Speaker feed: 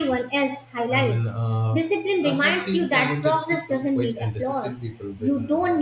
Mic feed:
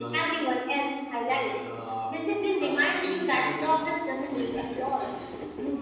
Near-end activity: none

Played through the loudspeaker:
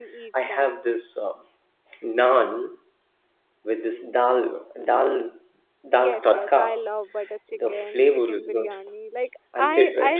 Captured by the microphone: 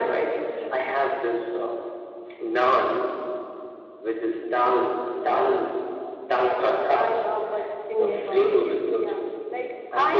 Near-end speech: present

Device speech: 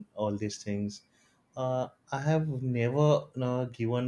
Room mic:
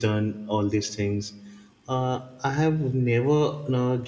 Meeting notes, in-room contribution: none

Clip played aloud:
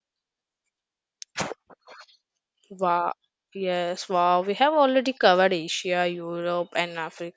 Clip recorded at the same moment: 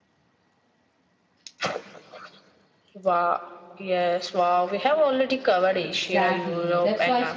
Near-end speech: present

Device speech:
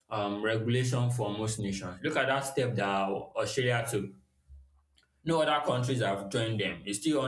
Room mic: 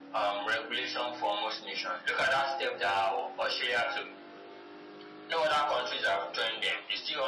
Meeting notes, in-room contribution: none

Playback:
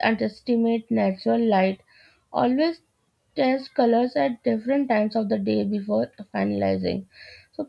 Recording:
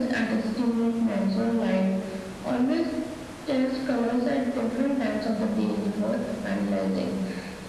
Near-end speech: none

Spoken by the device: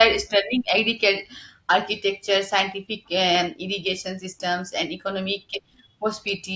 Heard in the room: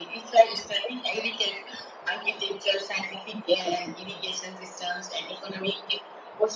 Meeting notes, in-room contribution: none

